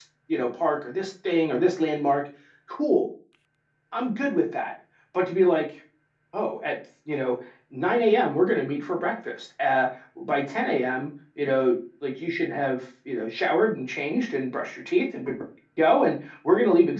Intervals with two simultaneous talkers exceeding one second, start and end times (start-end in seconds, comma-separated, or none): none